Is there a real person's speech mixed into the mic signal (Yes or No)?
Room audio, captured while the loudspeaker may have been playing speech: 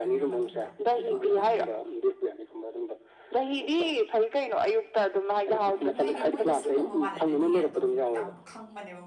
Yes